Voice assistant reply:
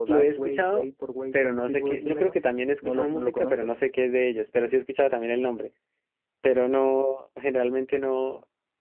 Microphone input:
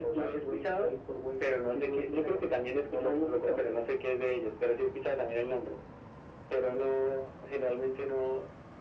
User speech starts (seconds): none

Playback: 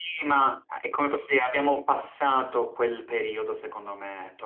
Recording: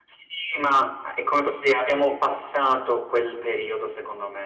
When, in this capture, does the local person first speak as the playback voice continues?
none

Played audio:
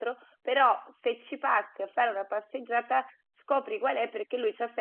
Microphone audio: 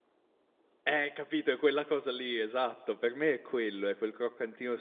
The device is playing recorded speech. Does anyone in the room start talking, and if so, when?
0.8 s

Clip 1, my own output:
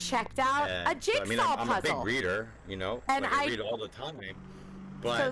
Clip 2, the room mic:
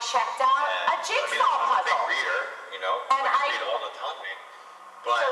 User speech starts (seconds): none

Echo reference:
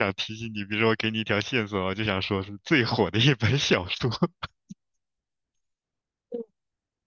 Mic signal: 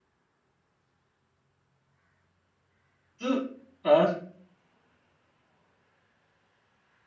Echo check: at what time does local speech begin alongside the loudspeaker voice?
3.2 s

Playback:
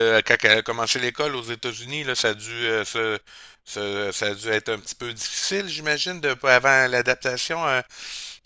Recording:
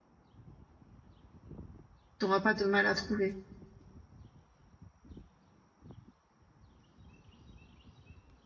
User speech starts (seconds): 2.2 s

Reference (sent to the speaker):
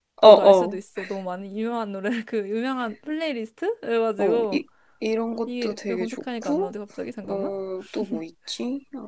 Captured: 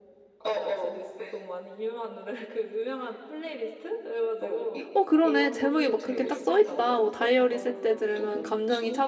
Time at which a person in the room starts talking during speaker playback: 4.9 s

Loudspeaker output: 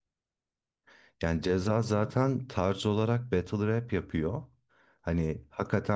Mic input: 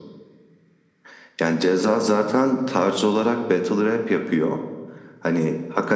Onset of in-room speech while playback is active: none

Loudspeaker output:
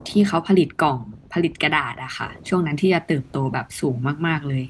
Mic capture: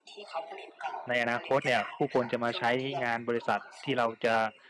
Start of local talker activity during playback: 1.1 s

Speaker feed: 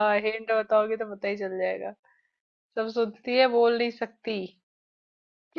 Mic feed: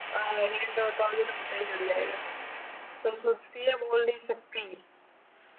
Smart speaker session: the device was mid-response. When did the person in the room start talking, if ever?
none

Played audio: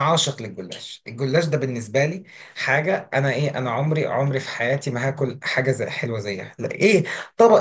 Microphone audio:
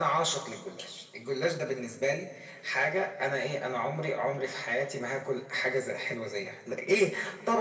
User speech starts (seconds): none

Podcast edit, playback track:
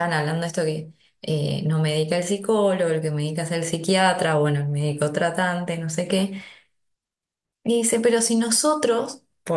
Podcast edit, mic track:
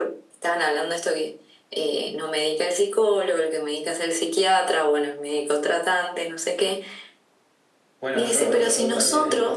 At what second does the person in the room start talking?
8.0 s

